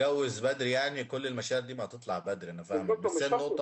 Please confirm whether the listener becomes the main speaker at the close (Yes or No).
Yes